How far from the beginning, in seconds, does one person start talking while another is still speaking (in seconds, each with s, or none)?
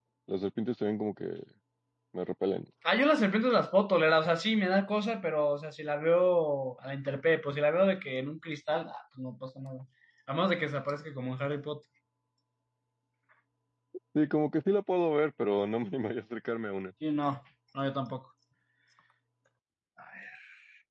none